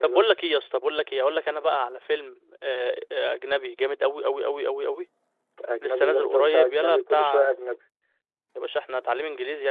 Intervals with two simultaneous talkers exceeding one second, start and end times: 5.8-7.5

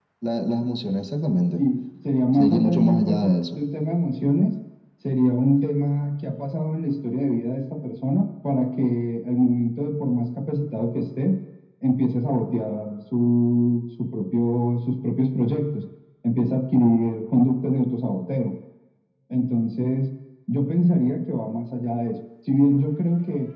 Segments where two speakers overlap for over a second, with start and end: 2.3-3.6

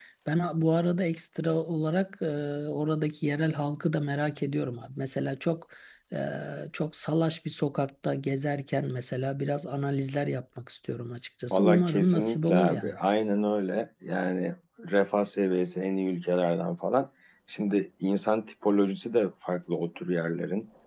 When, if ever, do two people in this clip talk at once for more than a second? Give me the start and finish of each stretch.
11.5-13.0

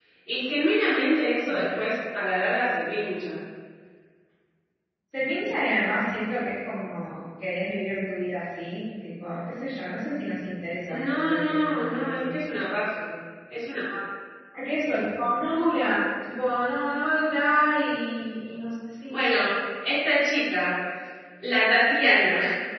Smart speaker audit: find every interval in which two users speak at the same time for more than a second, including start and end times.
10.9-12.4

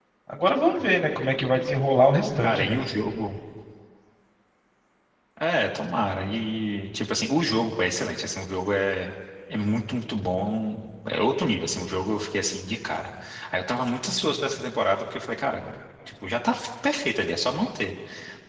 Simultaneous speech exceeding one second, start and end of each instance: none

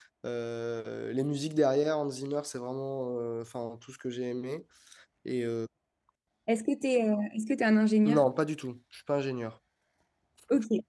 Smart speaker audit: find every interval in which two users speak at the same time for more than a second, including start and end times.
none

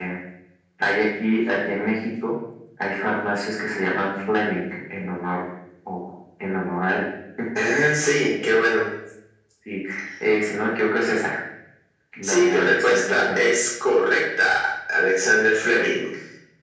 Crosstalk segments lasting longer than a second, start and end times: 12.2-13.5

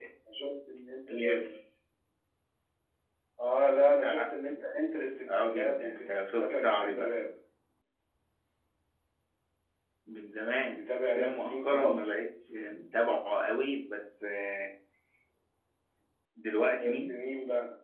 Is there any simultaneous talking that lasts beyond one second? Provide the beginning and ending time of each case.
5.3-7.1, 10.8-12.1

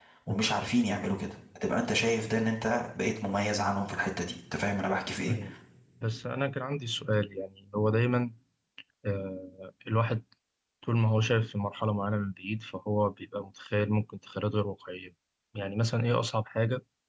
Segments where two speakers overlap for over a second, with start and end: none

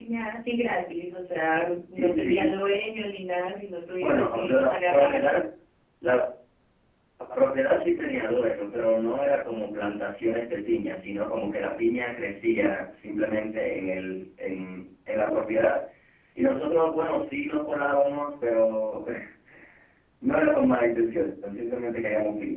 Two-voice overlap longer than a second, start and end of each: 4.0-5.3

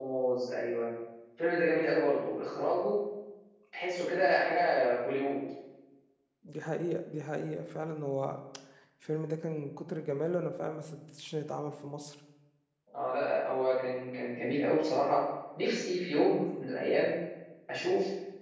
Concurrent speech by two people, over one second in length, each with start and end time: none

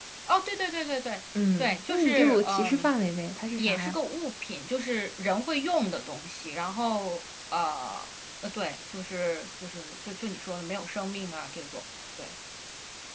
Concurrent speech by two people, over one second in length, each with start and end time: 1.6-2.9

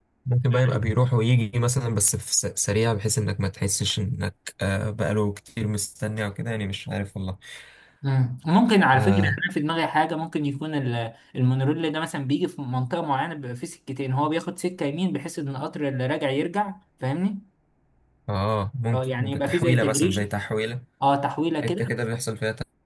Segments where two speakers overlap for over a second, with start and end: 18.9-20.2

